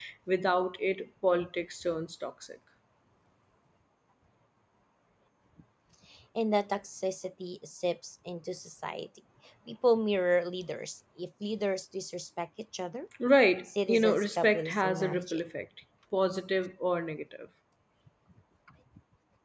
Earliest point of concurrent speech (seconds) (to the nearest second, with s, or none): 14 s